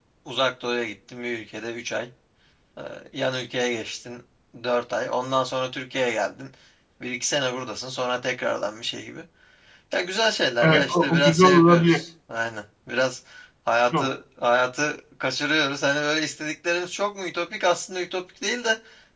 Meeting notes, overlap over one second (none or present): present